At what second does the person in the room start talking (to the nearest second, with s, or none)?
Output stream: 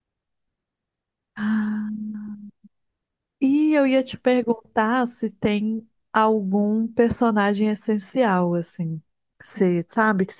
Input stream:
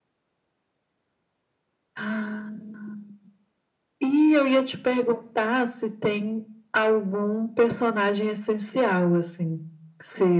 none